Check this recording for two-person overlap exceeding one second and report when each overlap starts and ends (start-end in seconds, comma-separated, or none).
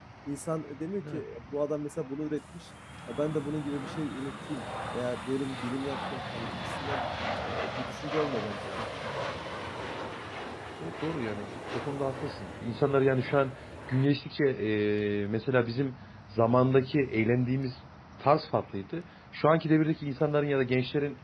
none